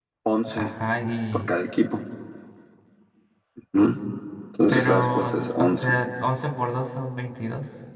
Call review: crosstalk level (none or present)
present